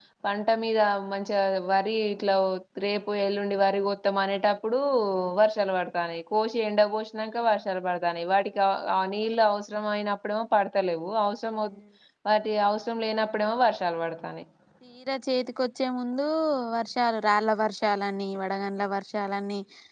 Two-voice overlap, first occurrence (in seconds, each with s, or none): none